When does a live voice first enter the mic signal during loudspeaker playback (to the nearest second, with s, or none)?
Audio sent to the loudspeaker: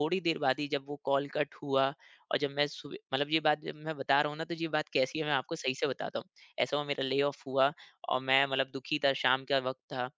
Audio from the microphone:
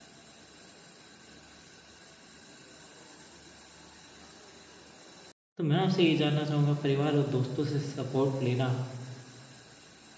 6 s